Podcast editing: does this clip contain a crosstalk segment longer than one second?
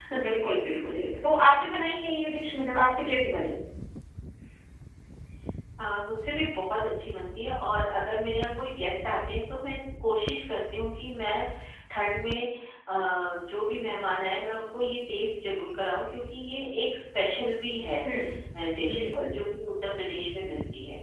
No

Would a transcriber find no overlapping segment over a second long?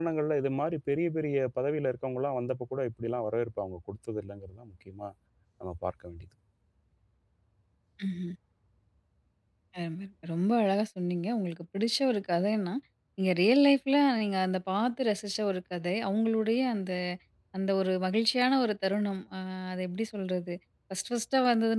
Yes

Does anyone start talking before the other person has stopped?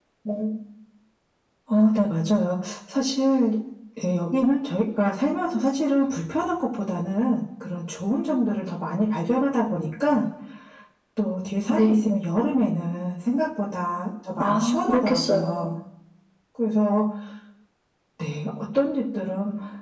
Yes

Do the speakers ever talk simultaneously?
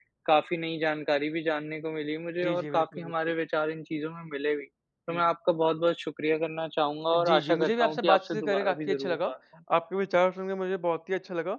Yes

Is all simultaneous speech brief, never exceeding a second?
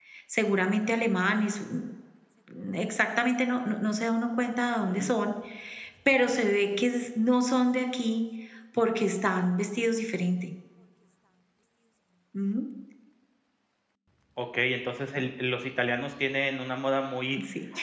Yes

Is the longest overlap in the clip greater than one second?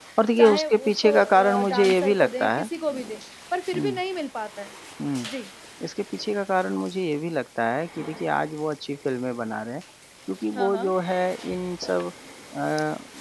Yes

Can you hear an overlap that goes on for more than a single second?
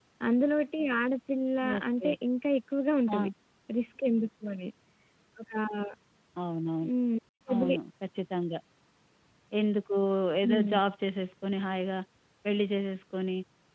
No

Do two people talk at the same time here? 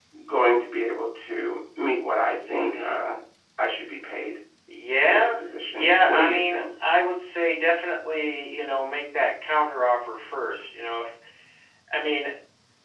Yes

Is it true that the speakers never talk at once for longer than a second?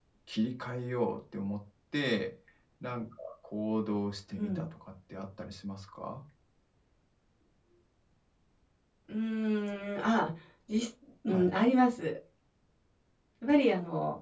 Yes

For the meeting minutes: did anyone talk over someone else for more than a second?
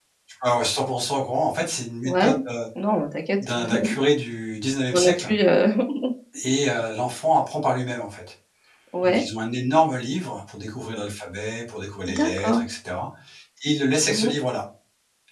No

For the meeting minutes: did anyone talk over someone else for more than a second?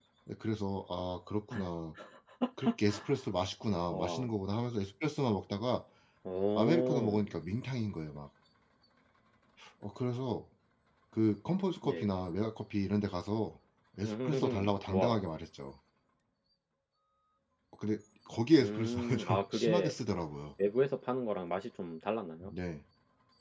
Yes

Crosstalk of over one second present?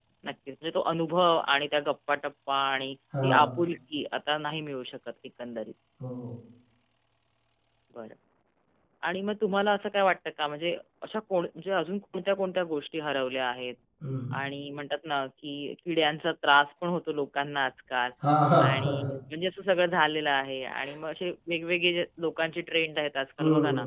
No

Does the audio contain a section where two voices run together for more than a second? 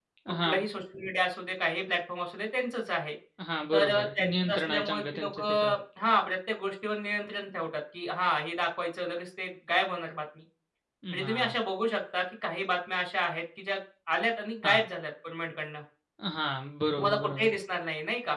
Yes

